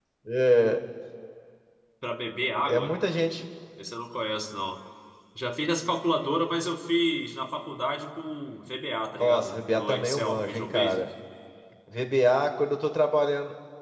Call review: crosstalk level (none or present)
present